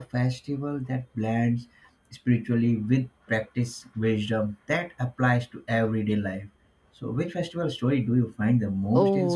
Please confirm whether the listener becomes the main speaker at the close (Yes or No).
Yes